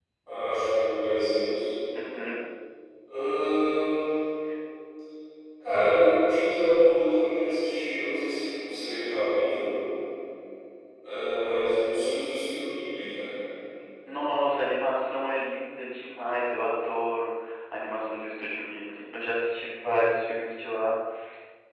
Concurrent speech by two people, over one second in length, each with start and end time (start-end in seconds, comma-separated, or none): none